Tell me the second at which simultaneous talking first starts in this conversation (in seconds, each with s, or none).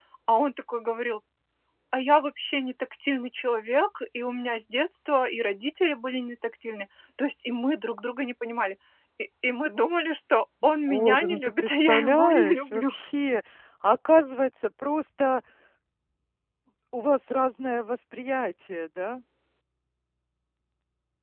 10.9 s